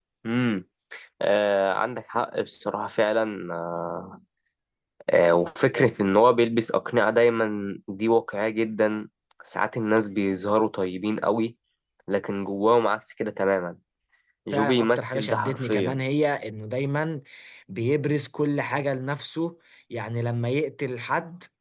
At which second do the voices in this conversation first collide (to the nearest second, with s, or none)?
15 s